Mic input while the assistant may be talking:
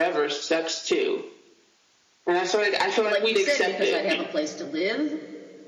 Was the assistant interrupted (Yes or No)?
Yes